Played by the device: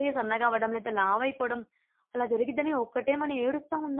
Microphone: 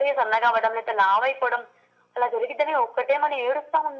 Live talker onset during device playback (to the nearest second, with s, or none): none